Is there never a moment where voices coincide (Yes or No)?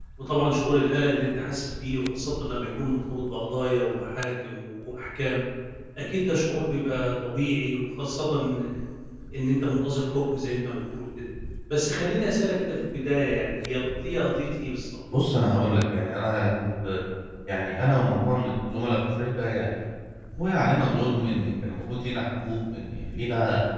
Yes